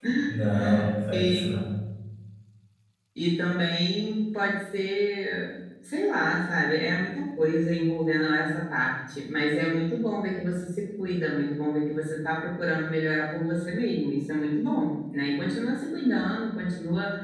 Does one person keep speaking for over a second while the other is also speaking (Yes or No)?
No